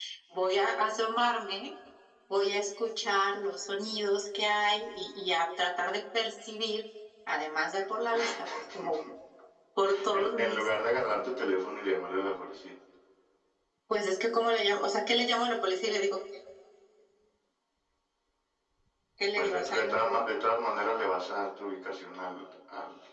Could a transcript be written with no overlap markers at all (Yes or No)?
No